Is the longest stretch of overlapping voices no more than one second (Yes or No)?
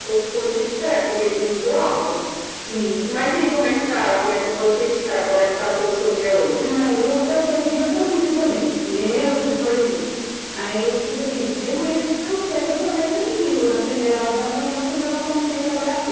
Yes